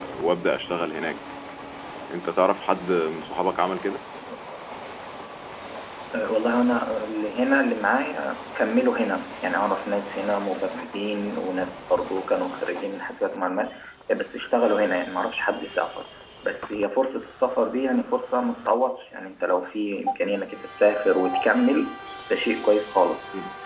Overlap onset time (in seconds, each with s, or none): none